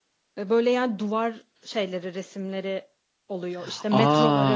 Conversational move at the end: taking over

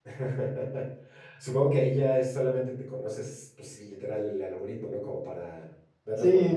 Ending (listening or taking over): taking over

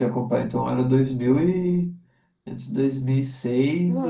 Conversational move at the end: taking over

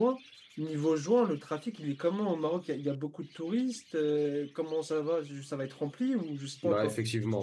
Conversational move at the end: taking over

